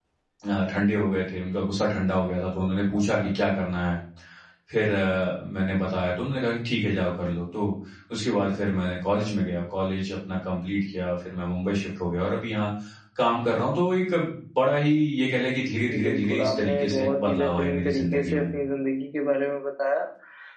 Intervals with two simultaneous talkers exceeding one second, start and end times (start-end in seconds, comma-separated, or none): 15.9-18.4